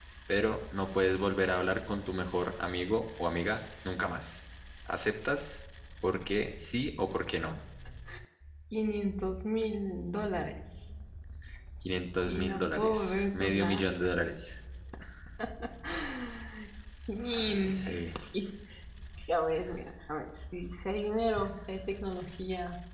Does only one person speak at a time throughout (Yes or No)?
No